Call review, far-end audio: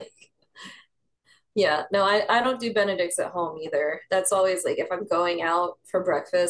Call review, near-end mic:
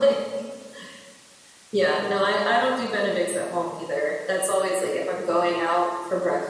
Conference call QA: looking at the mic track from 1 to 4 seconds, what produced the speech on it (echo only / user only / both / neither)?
echo only